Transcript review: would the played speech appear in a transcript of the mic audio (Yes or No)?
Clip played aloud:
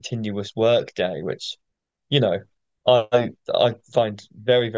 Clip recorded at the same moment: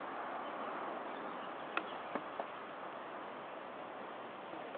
No